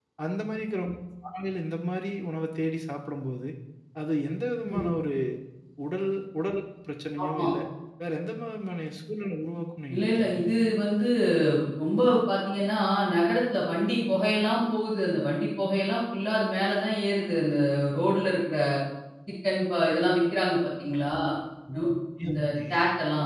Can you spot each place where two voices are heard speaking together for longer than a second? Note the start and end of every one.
none

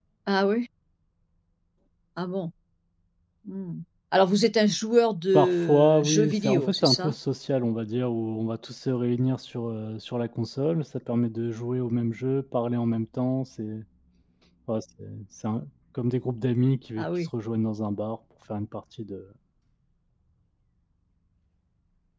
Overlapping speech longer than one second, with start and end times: 5.3-7.2

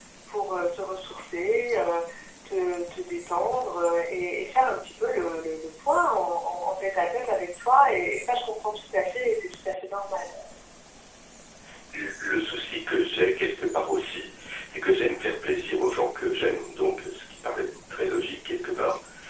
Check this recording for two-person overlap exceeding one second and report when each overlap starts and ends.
none

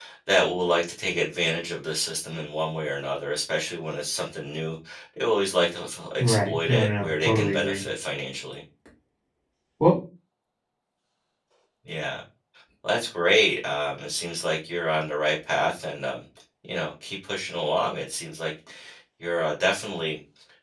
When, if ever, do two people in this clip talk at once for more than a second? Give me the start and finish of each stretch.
6.2-7.8

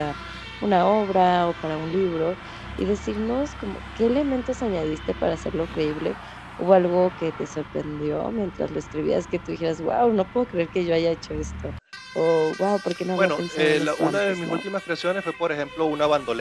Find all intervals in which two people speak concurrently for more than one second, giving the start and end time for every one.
13.2-14.6

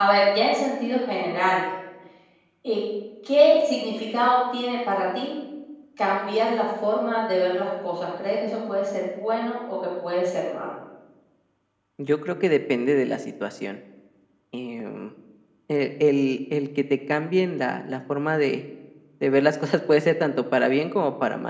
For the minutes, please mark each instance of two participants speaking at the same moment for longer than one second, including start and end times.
none

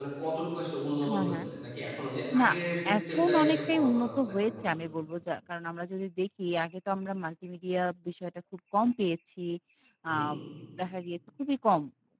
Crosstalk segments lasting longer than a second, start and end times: 3.0-4.8

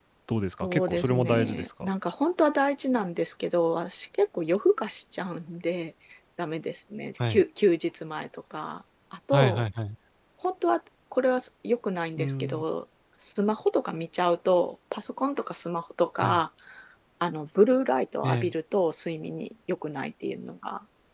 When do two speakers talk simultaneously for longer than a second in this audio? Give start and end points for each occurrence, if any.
0.6-1.9

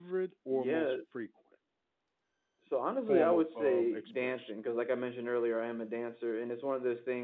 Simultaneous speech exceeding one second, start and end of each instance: 3.1-4.5

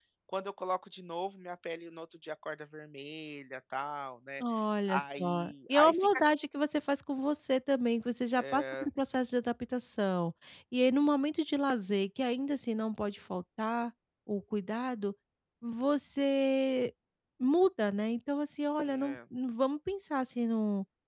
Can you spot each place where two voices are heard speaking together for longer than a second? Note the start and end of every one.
4.9-6.3

